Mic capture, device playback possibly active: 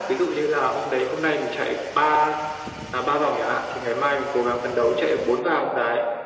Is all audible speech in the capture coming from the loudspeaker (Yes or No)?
Yes